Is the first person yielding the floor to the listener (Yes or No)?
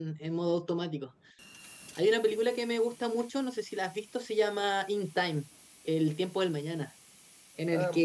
No